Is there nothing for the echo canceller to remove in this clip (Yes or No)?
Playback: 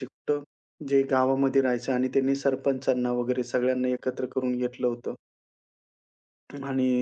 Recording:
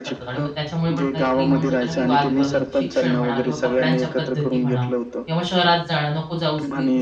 No